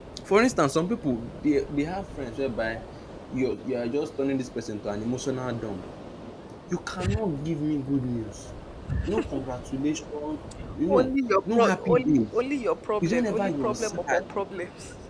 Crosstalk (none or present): present